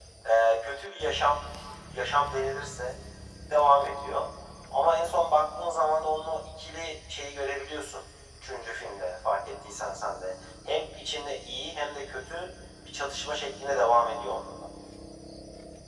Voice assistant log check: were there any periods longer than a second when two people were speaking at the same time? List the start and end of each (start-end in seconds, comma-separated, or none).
none